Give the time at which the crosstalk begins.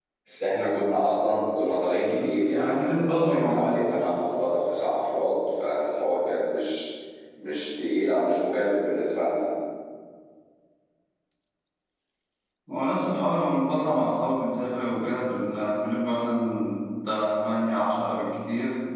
2.1 s

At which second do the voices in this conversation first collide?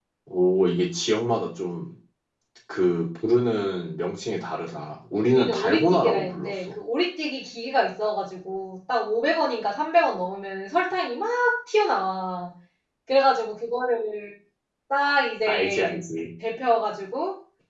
5.2 s

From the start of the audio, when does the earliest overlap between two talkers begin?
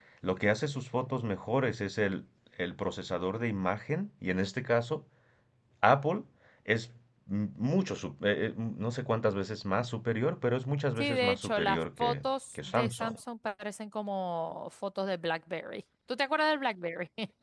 11.0 s

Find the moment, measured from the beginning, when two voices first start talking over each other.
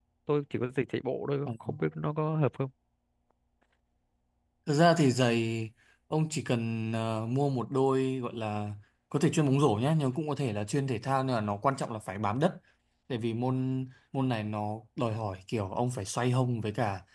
none

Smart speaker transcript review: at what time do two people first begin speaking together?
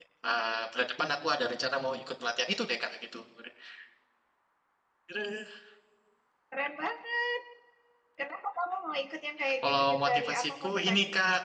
9.4 s

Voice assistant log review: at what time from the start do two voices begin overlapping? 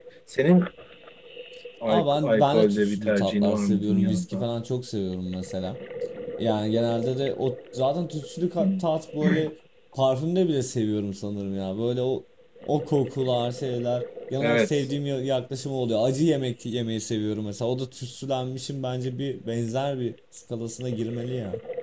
1.9 s

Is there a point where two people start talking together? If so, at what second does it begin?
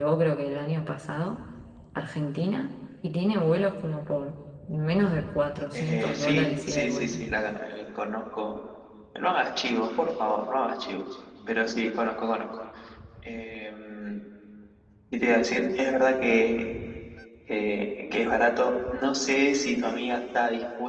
5.7 s

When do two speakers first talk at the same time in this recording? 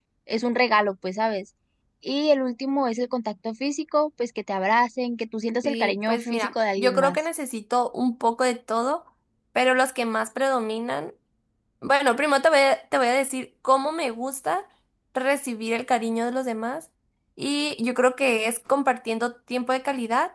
5.6 s

